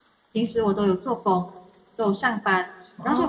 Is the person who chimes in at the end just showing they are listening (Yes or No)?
Yes